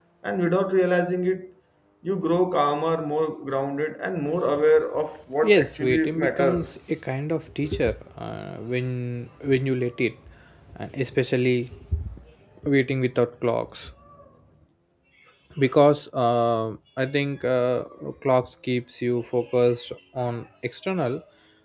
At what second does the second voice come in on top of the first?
5.4 s

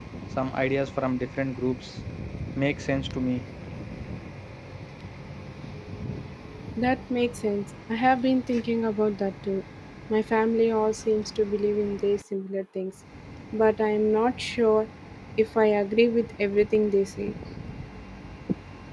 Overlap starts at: none

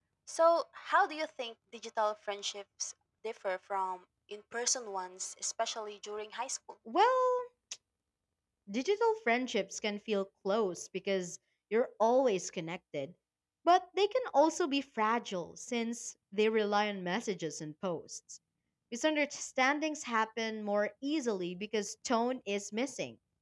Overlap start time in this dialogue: none

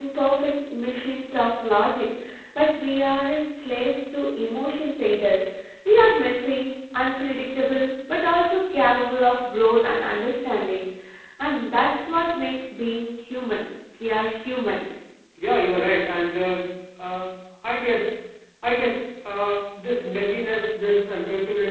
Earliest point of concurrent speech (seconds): none

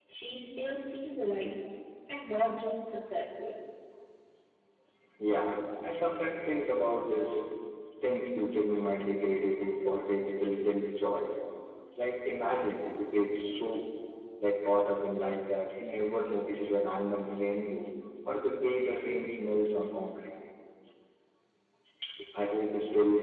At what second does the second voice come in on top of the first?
none

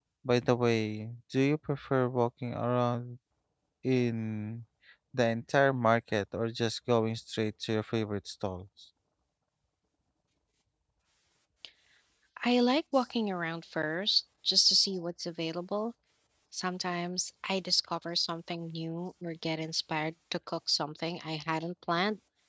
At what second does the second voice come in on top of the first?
none

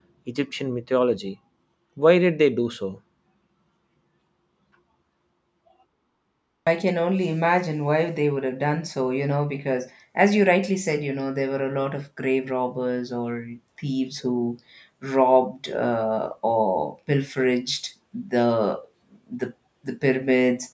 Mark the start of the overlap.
none

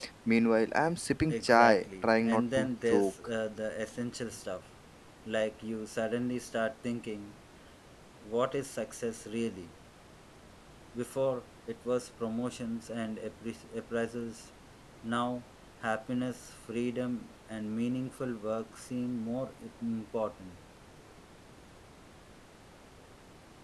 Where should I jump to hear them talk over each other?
1.3 s

